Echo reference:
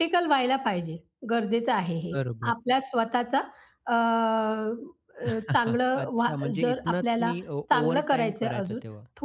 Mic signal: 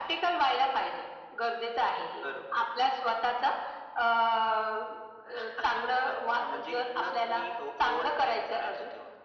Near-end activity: none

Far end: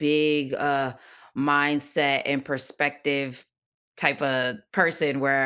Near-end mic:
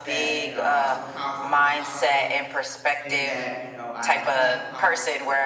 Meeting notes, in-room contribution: present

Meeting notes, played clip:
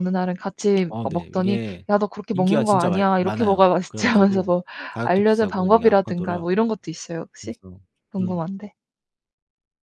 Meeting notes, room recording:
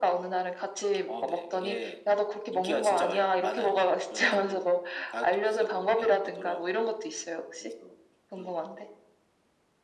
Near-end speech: none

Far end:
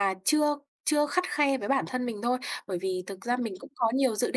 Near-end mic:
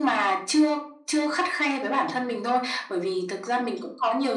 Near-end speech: none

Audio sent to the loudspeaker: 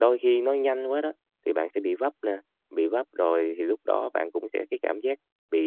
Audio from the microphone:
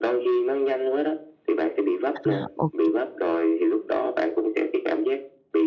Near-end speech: present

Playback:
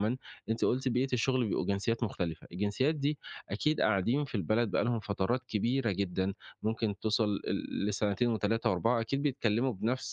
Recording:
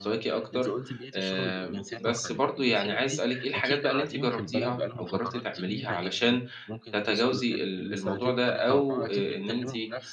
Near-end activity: present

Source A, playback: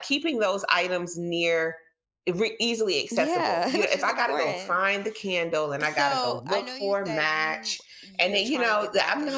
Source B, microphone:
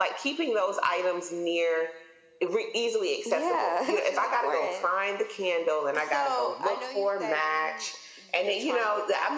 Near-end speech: none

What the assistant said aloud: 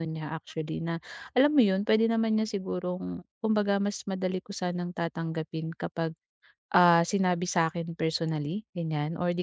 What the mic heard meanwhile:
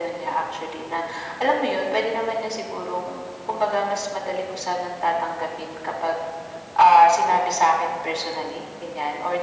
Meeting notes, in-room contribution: none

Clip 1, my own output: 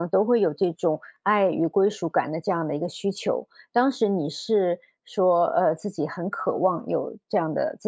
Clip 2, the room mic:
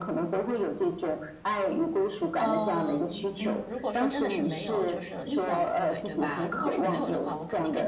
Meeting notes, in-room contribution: present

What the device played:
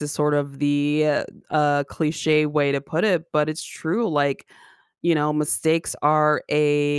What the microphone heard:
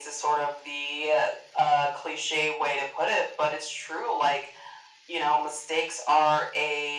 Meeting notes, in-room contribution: none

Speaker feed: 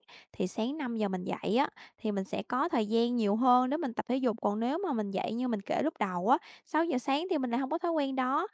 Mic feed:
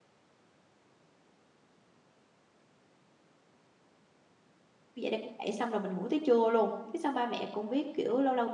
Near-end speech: present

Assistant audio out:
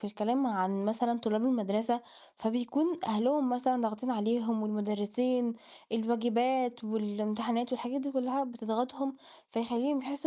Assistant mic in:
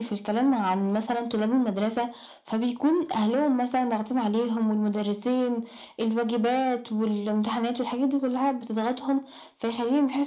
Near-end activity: none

